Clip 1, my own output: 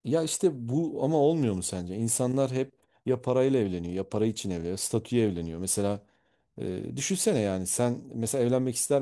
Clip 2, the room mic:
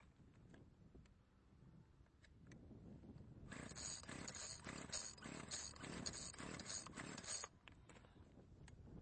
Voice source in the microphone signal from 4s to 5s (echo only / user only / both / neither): neither